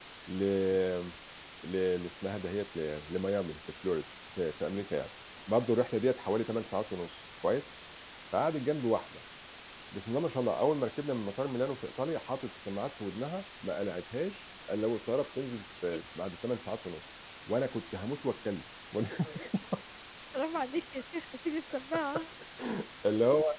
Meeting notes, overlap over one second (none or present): none